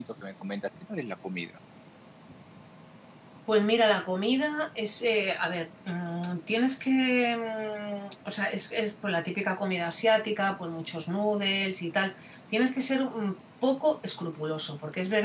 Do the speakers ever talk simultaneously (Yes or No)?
No